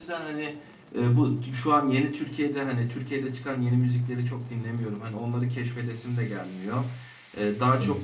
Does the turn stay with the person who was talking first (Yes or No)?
Yes